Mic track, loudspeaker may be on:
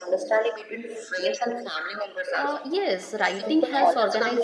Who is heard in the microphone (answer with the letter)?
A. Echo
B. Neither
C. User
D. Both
D